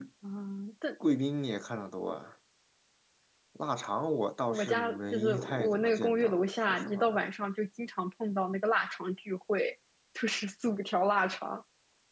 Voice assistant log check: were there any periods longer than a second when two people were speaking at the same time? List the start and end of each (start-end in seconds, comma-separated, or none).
4.5-7.2